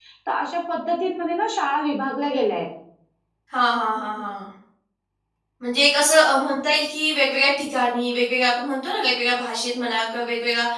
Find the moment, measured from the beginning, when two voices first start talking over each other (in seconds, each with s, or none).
none